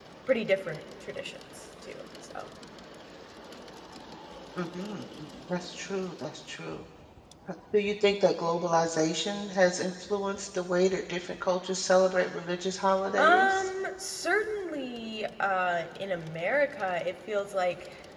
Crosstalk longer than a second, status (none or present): none